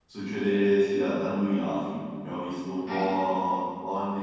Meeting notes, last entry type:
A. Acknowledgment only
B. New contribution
A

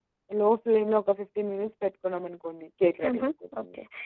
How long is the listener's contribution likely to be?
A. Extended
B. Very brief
A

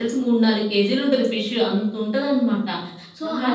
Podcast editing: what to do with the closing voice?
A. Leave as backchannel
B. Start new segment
A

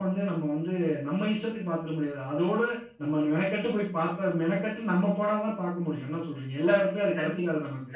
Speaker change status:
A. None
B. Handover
B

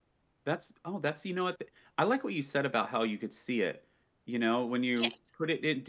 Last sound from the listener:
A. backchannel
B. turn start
A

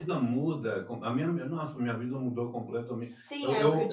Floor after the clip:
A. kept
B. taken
B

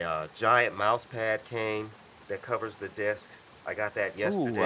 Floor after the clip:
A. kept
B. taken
B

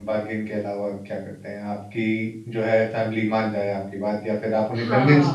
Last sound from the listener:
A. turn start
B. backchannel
A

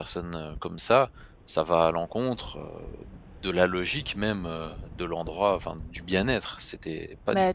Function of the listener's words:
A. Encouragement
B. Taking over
B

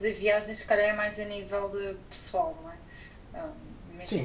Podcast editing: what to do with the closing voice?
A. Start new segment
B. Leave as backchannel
A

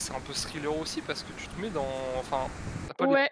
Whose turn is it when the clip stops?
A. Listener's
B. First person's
A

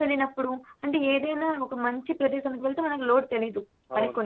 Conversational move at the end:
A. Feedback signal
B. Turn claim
A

